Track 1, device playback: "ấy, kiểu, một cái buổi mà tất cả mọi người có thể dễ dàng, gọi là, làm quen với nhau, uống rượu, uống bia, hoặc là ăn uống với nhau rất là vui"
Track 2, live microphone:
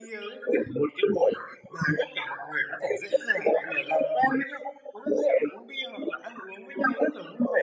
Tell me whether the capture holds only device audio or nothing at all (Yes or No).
Yes